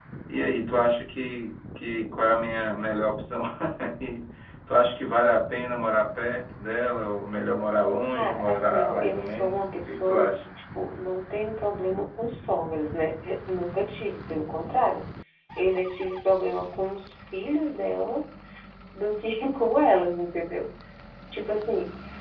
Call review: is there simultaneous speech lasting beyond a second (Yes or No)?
Yes